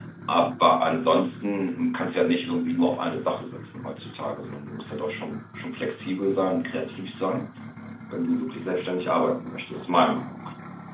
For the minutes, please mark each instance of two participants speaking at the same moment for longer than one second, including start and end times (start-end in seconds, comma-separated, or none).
none